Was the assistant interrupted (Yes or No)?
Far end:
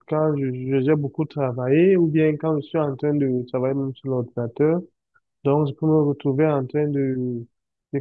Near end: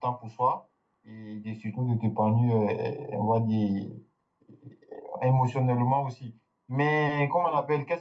Yes